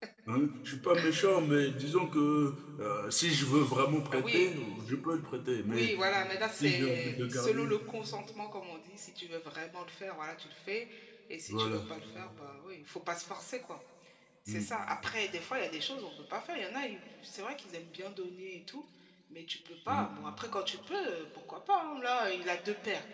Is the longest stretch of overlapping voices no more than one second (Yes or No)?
No